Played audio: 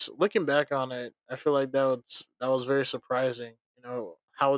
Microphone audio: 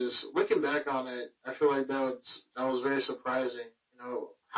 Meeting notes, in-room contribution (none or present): none